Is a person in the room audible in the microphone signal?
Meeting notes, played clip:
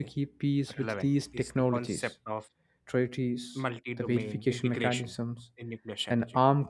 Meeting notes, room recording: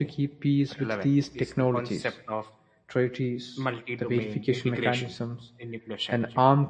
No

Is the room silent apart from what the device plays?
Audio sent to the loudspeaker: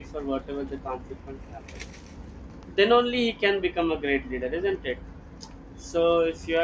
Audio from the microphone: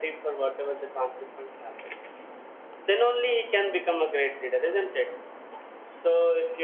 Yes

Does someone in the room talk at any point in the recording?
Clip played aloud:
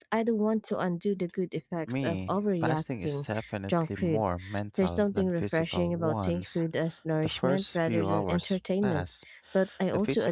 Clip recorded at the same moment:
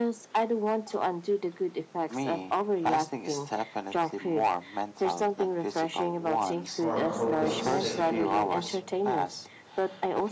Yes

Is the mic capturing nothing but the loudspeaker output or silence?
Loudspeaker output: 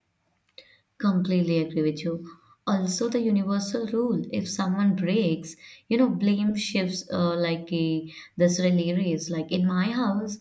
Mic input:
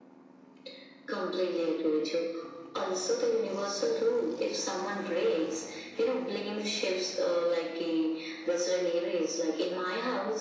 Yes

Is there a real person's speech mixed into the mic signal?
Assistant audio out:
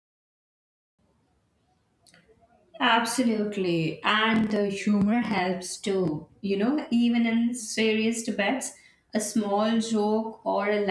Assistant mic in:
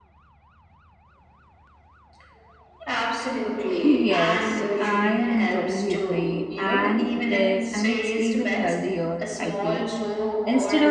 Yes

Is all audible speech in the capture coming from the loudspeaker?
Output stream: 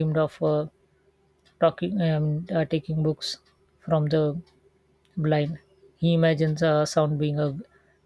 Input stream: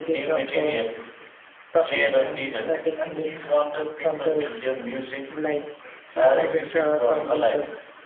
No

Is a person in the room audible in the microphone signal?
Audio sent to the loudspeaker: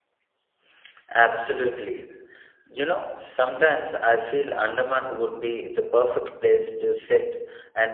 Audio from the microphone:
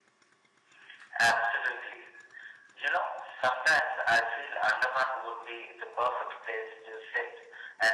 No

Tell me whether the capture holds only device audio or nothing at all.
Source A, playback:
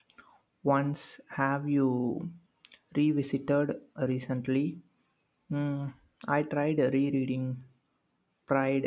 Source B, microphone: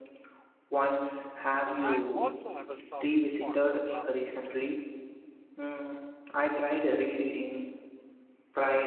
No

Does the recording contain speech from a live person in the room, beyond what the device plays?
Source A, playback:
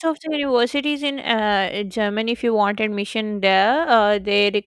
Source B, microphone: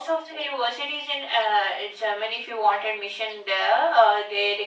No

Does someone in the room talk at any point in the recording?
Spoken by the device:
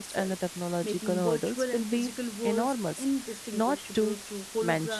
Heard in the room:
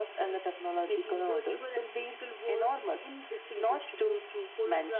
No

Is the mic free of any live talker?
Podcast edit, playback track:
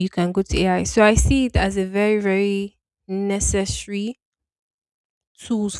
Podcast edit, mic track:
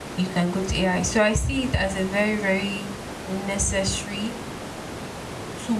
Yes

